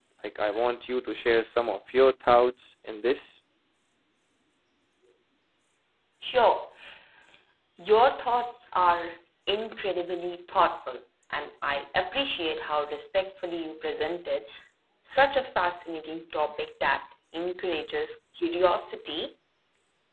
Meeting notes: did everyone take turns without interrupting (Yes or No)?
Yes